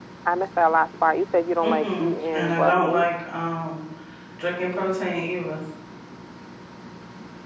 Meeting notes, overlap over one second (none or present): present